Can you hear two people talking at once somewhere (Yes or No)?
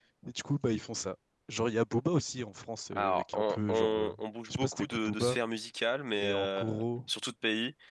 Yes